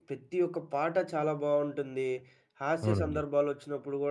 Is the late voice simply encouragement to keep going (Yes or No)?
Yes